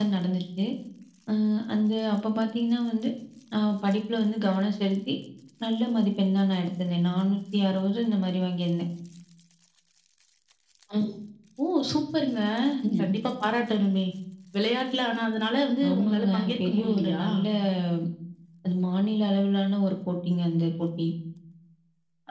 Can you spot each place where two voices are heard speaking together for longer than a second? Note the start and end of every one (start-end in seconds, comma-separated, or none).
15.9-17.2